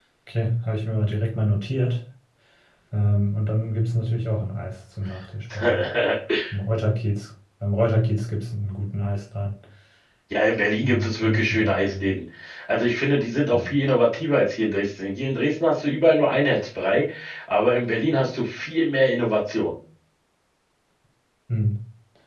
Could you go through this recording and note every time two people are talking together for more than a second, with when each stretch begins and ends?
10.8-12.1

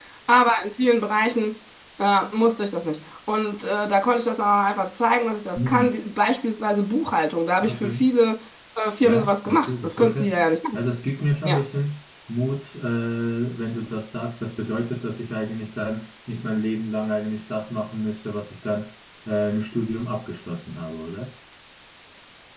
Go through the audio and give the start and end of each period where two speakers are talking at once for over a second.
9.0-10.3

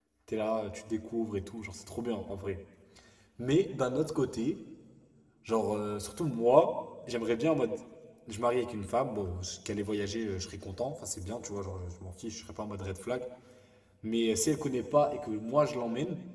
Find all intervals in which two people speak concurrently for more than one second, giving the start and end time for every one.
none

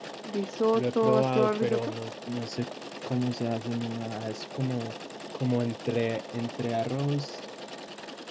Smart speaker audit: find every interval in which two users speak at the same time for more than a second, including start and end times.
0.7-1.9

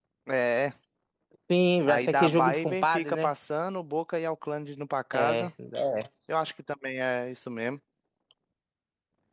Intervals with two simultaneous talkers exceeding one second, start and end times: 1.9-3.3

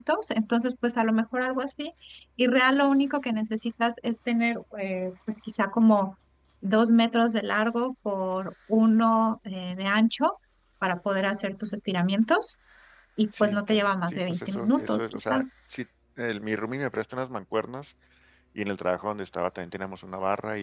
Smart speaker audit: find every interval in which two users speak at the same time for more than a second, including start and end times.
13.4-15.4

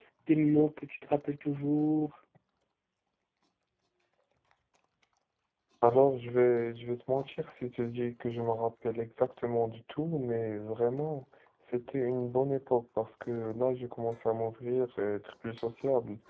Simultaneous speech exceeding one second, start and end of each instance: none

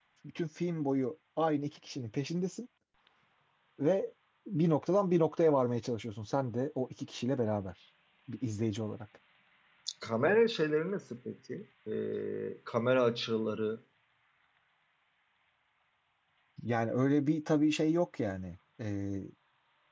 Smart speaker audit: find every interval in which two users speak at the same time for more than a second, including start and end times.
none

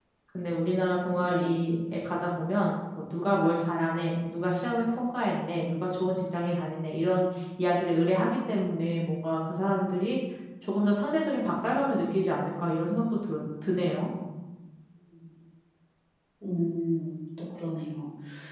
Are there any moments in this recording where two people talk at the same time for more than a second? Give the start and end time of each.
none

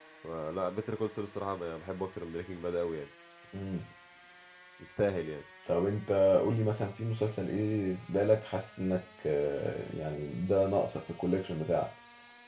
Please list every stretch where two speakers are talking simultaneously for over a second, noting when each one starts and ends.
none

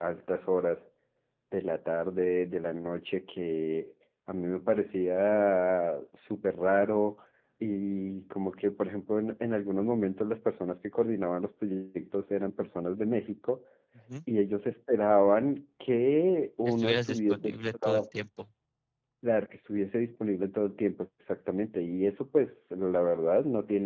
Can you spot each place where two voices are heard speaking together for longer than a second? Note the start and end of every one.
16.6-18.0

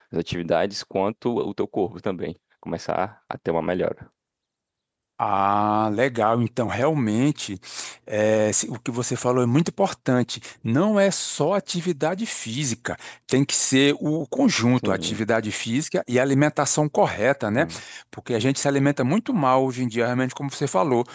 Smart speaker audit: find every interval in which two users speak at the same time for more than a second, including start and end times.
none

